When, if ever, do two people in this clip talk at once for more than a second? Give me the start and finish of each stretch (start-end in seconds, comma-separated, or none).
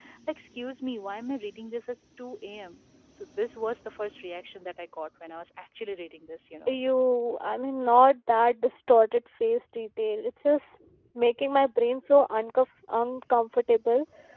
none